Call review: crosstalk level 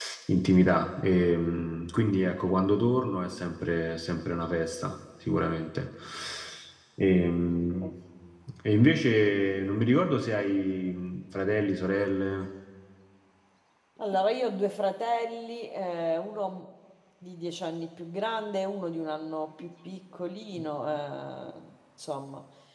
none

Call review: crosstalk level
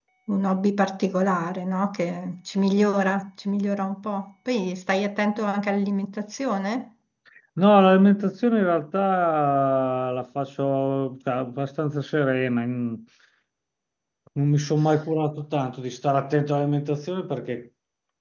none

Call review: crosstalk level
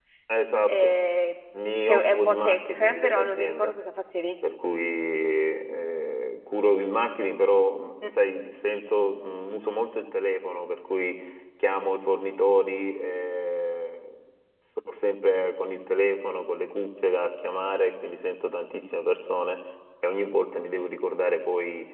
present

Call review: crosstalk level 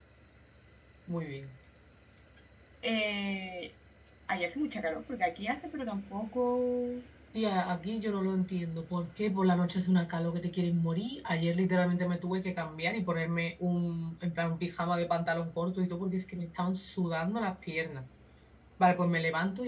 none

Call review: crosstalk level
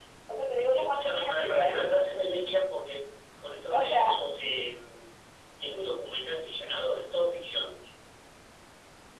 present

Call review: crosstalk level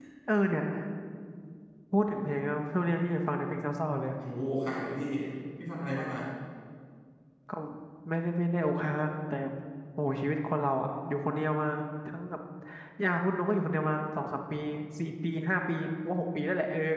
none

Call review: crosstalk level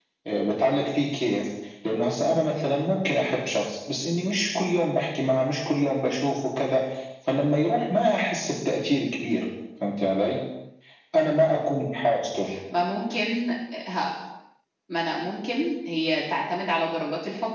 none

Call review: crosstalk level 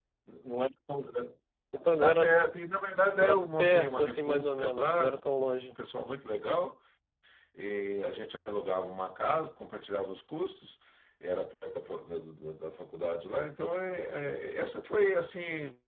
present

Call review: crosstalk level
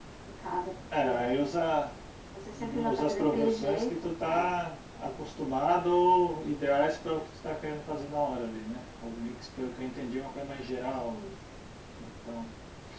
present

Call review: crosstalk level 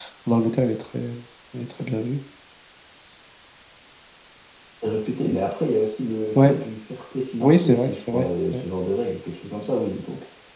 present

